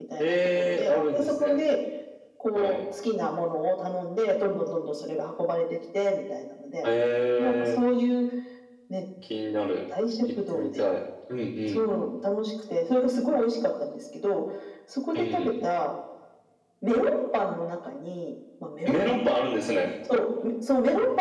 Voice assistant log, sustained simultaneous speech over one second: present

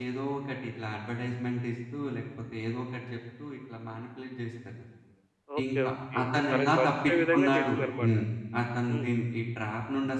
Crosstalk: present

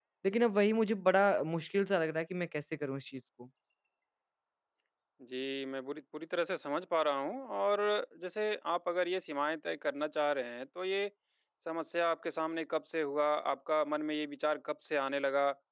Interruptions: none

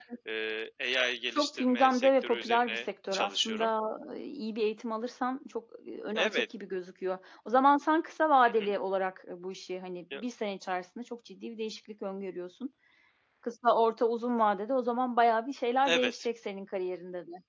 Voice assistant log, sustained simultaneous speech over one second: present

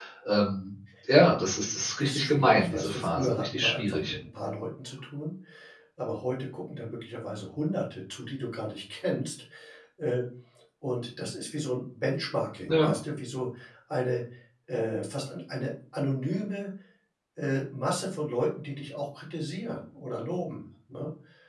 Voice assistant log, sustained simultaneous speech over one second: present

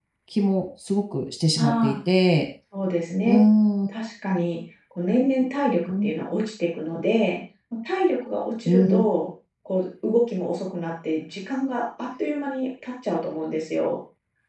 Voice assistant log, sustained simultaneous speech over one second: none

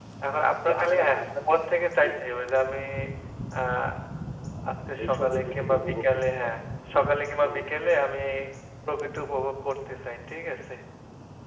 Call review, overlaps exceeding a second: present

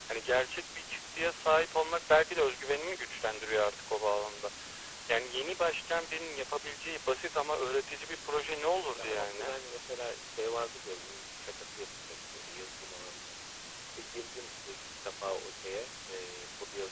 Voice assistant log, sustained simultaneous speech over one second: none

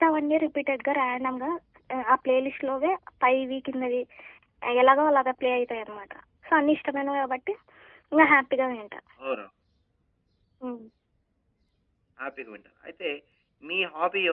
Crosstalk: none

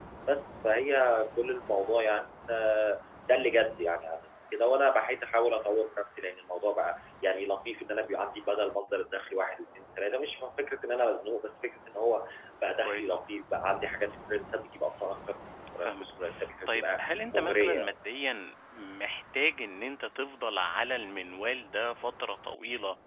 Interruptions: present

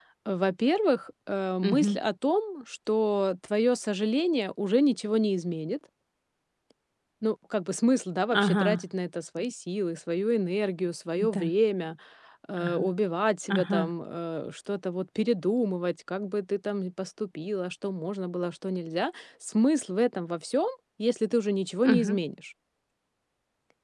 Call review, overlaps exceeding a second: none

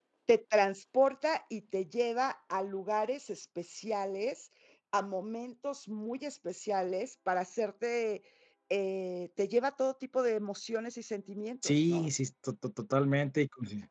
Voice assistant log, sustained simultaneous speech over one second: none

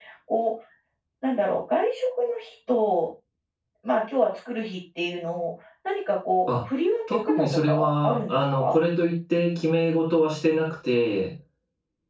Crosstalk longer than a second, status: present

